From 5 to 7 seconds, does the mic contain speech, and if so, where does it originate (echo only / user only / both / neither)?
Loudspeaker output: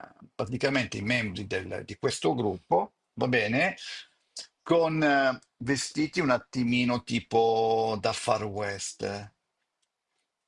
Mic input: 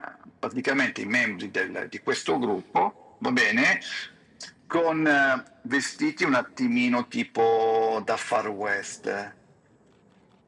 echo only